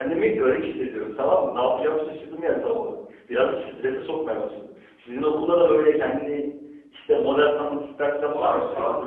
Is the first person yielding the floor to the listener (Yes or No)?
Yes